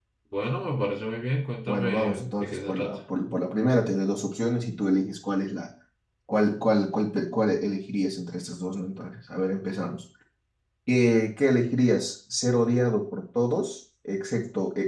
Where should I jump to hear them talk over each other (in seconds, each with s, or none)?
1.7 s